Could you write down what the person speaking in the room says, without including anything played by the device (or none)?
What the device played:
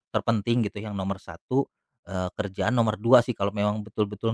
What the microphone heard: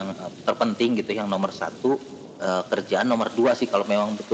none